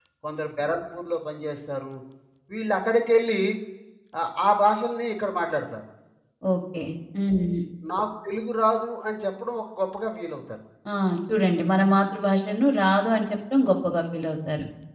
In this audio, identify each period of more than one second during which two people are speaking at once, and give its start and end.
none

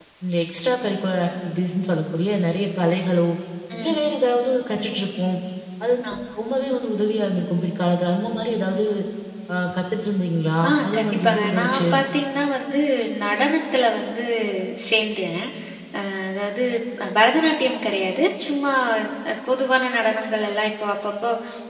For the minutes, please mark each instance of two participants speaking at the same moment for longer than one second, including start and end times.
10.7-11.9

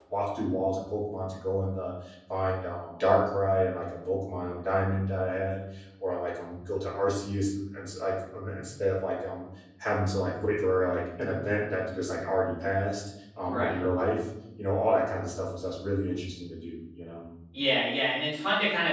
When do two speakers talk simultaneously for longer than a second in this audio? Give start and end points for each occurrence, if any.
none

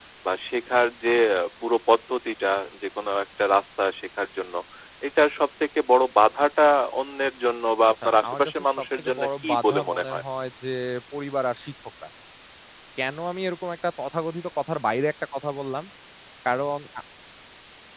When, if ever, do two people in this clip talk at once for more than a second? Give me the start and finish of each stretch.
7.9-10.2

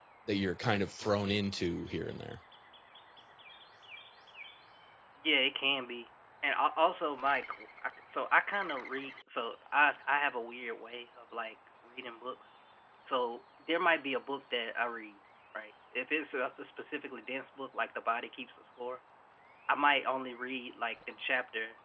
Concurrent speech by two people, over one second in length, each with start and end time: none

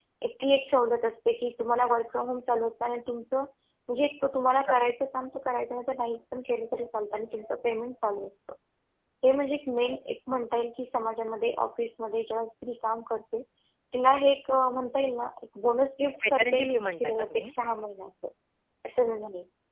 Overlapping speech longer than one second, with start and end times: 16.2-17.5

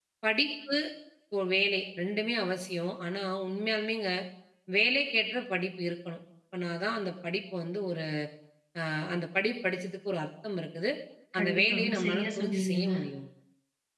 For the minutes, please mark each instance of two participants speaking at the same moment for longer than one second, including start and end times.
11.4-12.9

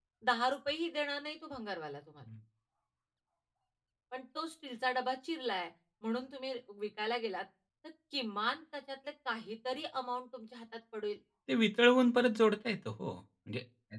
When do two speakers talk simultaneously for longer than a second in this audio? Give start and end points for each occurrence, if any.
none

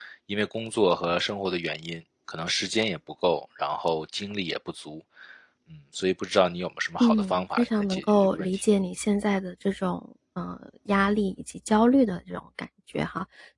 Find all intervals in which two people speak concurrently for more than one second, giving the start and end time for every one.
7.0-8.6

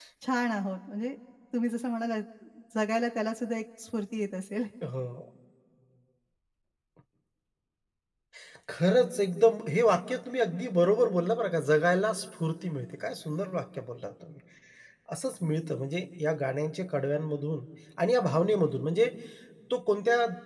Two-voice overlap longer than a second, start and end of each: none

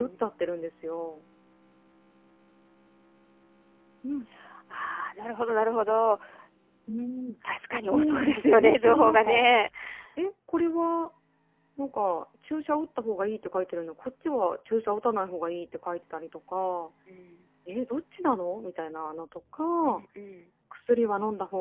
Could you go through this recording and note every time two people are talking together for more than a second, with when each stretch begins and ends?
7.8-9.4

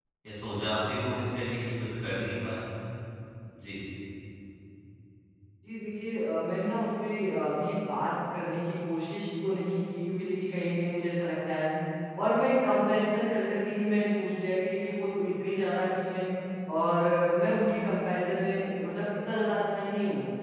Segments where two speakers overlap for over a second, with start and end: none

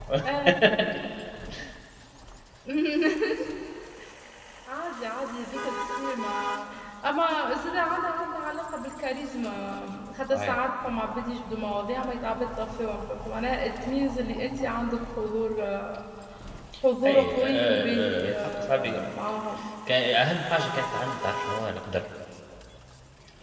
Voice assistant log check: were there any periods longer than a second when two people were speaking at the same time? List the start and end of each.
17.1-19.0

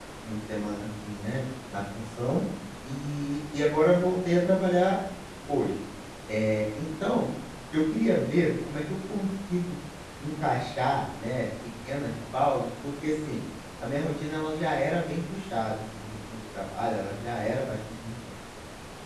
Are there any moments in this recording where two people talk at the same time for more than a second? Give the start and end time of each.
none

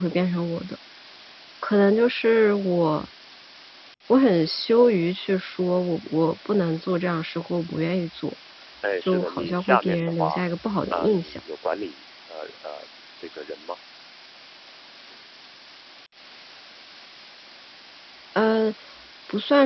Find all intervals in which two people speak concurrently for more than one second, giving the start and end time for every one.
9.0-10.4

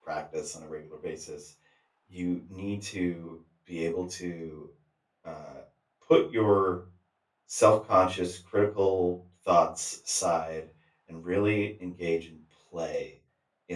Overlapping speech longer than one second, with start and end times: none

